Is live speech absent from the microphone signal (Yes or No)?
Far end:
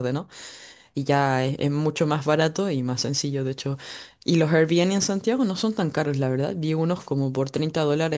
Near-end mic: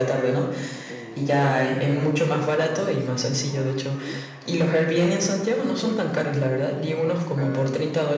No